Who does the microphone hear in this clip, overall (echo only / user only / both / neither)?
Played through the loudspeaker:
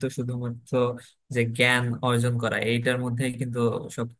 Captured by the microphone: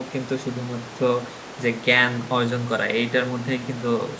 echo only